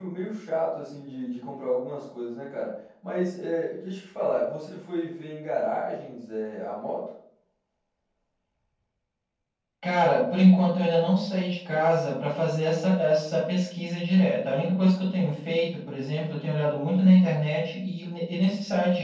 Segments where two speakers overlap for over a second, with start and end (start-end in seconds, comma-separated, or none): none